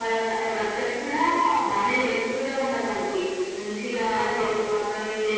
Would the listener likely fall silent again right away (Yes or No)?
Yes